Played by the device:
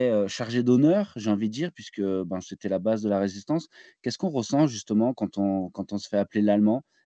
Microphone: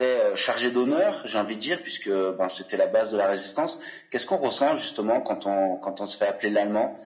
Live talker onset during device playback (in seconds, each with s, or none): none